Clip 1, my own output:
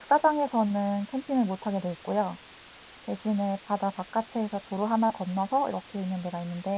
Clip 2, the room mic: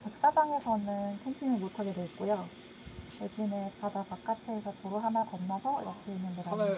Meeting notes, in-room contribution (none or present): present